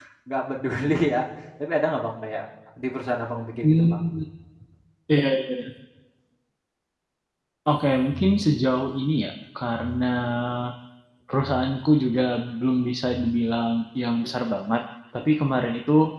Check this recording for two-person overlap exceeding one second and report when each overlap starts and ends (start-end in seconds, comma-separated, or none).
none